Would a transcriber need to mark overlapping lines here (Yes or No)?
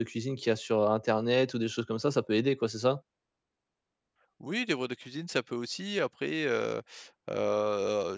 No